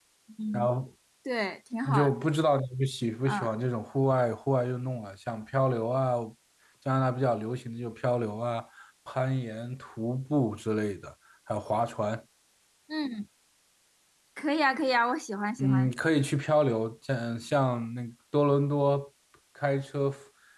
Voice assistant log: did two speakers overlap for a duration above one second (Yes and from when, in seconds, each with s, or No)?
No